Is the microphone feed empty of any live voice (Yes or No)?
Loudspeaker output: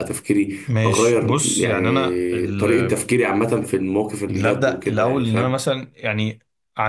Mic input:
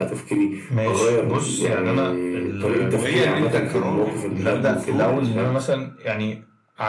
No